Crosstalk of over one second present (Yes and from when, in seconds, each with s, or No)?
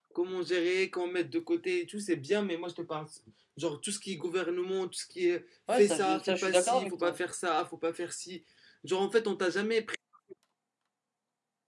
Yes, from 5.7 s